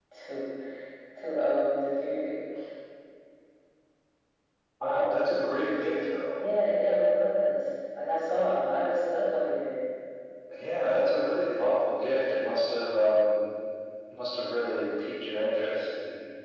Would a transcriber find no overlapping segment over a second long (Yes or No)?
Yes